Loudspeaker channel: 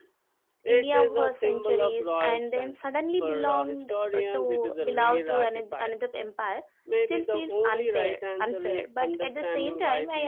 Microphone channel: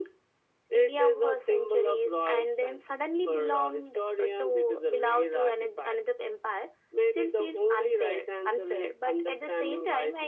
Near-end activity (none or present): none